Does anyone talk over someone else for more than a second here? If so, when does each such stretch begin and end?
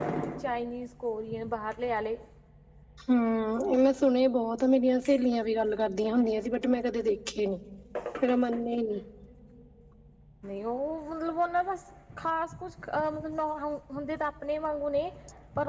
none

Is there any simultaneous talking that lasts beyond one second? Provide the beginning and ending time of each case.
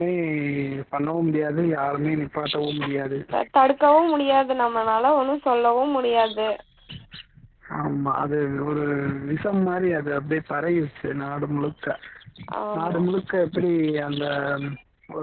none

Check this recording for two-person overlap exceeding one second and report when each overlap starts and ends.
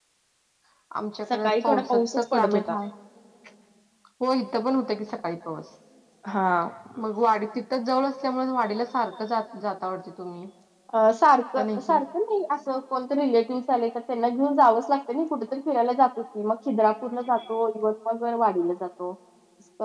1.3-2.8

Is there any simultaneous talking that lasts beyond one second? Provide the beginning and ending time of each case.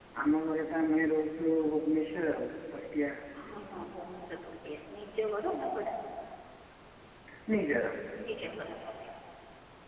none

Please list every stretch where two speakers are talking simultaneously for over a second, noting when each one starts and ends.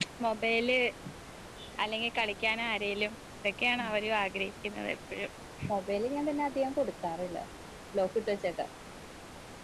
none

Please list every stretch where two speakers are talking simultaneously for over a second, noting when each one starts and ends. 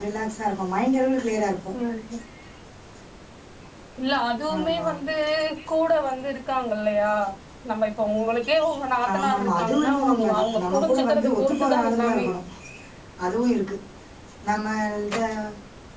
9.1-12.2

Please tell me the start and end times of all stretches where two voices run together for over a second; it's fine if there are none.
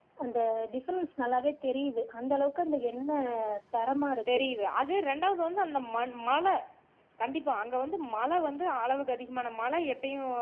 none

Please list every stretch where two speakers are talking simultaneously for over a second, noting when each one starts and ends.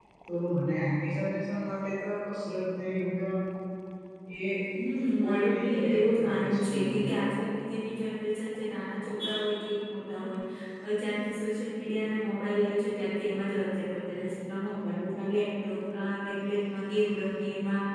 5.2-7.2

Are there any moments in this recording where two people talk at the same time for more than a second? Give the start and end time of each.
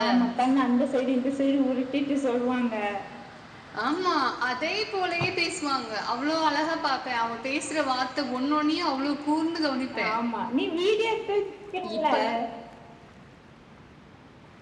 none

